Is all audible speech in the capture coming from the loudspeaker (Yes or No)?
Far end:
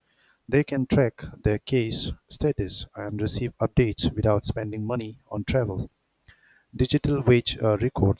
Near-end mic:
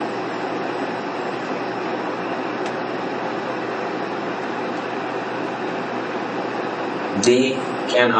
No